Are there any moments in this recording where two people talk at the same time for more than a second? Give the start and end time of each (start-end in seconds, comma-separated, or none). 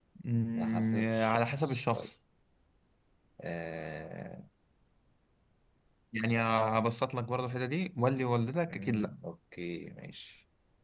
0.6-2.1